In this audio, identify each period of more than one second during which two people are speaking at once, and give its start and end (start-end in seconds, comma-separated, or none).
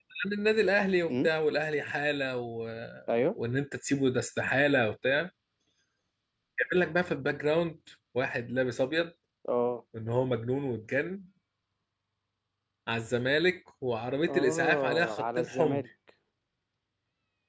14.2-15.8